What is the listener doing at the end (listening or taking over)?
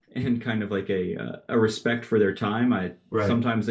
listening